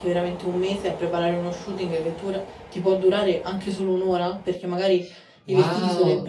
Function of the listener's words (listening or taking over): taking over